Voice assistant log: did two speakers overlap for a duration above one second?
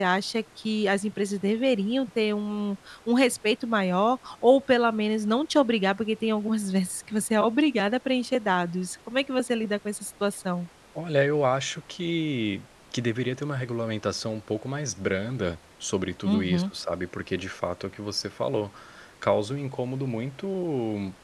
No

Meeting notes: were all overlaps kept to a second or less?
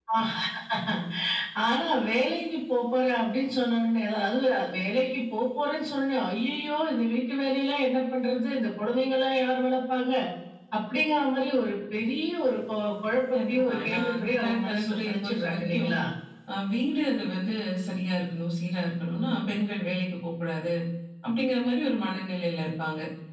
No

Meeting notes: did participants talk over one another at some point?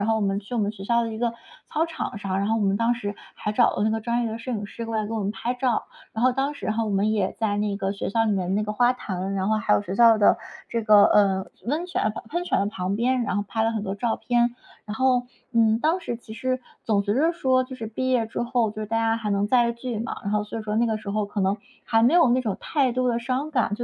No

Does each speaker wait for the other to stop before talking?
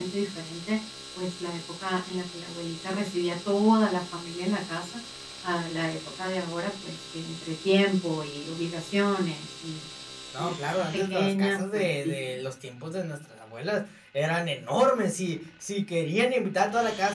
No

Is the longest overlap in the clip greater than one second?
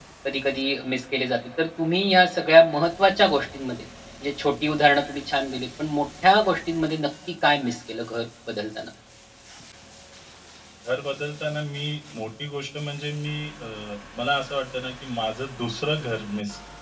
No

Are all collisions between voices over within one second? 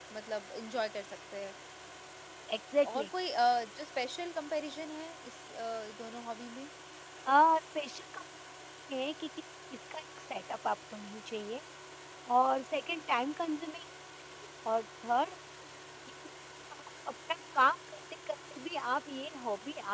Yes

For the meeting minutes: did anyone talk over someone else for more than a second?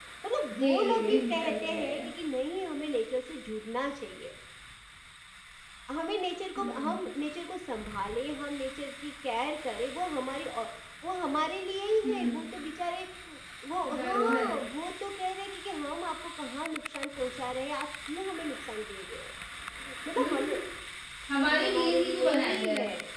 Yes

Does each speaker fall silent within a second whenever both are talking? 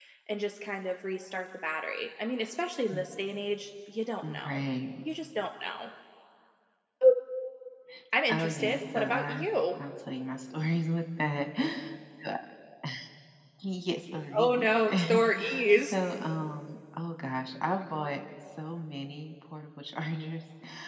No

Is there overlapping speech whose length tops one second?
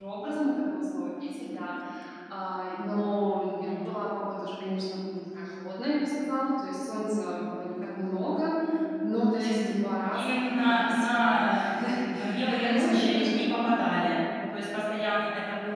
Yes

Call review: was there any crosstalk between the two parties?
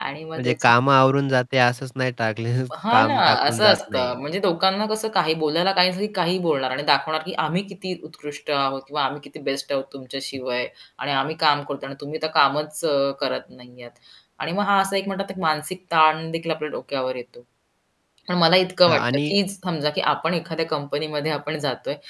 Yes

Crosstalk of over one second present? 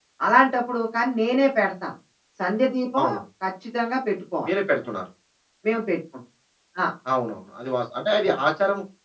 No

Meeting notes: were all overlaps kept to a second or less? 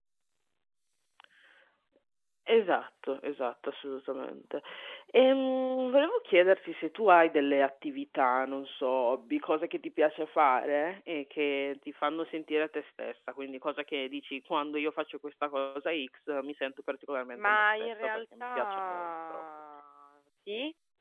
No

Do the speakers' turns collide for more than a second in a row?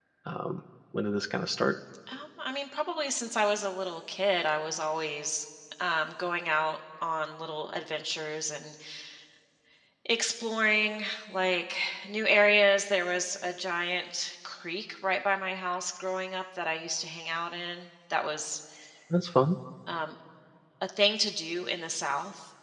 No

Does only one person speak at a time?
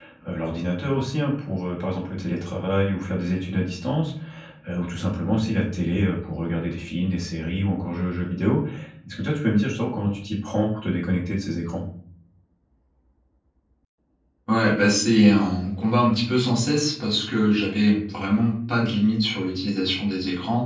Yes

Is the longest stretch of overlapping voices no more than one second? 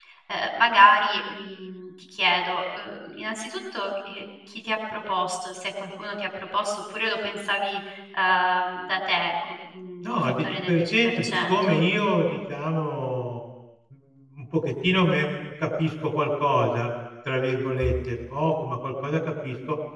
No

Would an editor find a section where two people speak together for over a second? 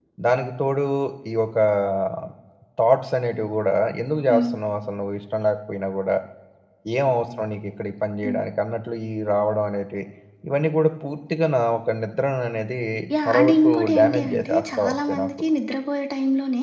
Yes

